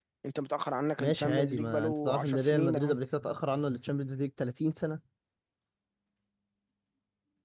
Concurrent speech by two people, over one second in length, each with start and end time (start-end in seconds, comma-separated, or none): 1.0-2.9